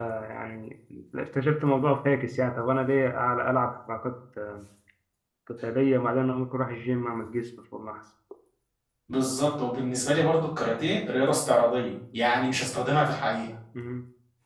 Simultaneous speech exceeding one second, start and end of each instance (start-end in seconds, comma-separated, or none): none